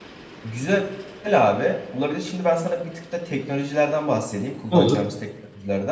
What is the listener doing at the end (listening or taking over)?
listening